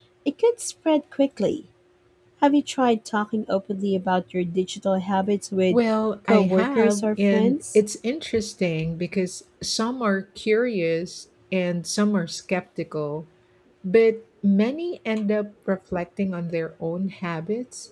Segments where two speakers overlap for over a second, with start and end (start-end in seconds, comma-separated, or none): 6.3-7.8